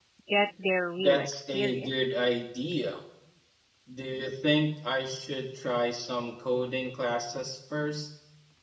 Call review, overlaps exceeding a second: present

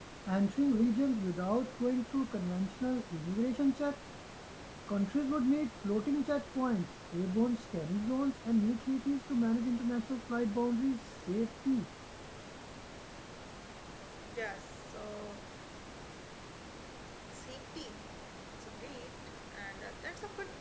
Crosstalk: none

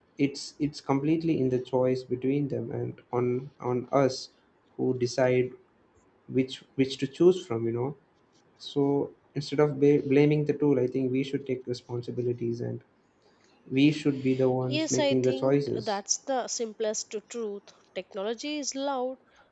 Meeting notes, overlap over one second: present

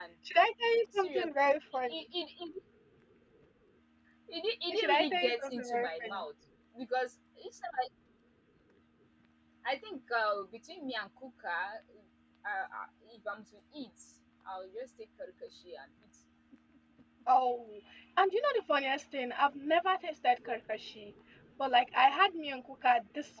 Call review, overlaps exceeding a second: present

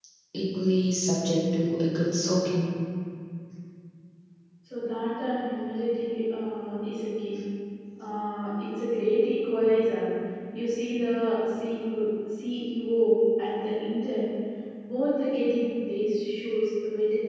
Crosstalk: none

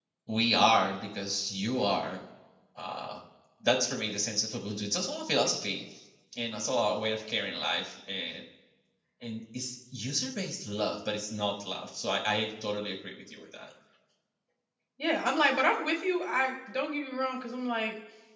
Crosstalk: none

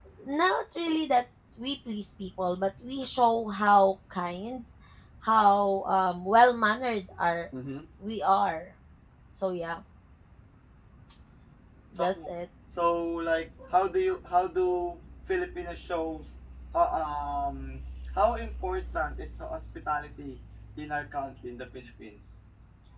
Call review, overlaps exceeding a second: none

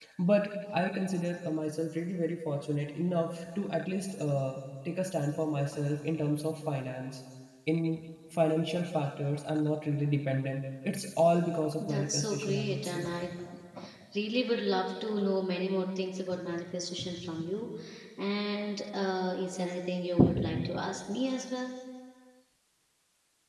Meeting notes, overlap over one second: present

